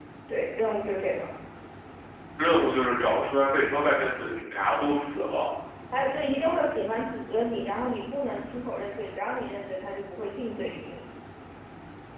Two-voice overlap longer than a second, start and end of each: none

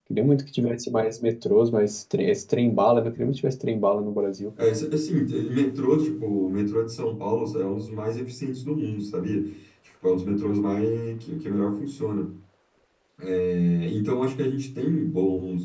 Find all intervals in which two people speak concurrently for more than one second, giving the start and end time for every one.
none

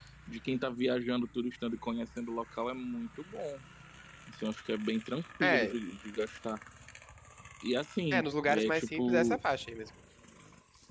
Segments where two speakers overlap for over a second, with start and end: 8.1-9.4

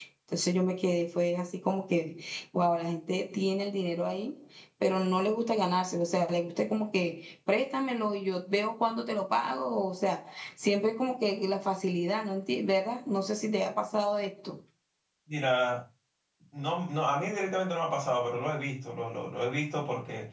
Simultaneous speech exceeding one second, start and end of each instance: none

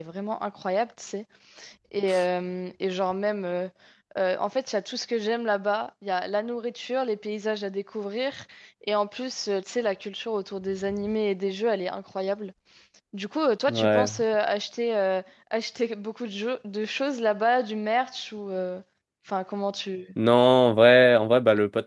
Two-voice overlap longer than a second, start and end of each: none

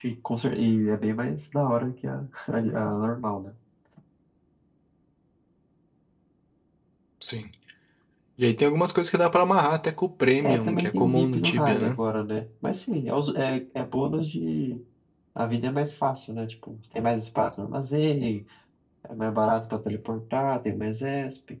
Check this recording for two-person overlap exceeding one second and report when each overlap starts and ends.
10.4-12.0

